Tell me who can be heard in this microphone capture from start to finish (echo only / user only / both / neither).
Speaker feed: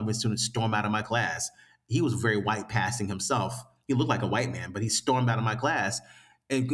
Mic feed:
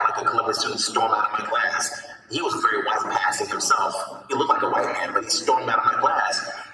echo only